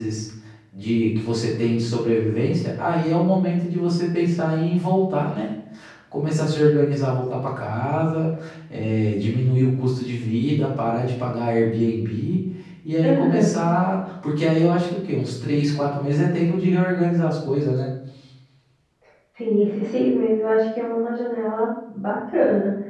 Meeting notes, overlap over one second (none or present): none